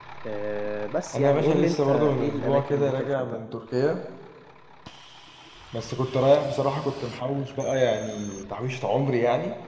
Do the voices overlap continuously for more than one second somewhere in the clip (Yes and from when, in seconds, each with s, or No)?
Yes, from 1.2 s